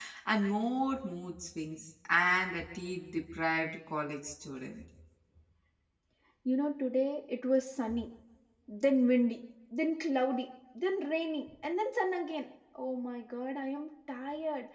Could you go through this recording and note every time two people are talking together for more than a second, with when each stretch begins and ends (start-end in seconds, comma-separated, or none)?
none